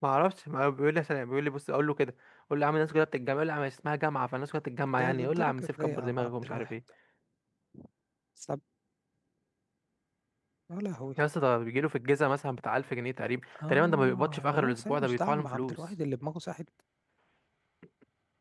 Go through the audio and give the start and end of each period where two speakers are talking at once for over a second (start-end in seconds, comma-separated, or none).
5.0-6.7, 13.7-15.8